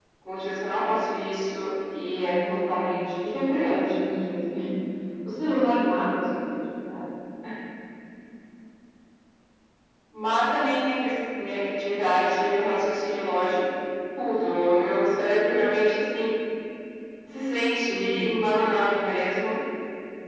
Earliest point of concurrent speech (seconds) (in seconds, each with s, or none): 2.2 s